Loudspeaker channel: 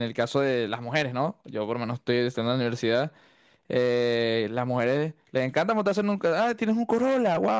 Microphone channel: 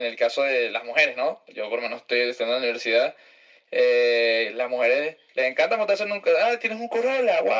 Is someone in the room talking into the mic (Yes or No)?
No